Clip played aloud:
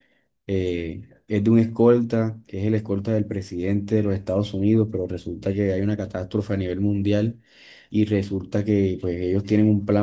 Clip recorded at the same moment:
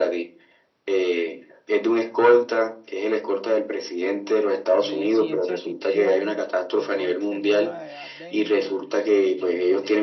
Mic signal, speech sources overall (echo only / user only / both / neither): both